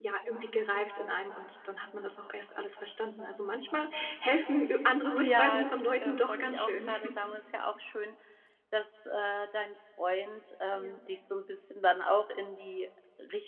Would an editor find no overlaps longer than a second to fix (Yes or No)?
No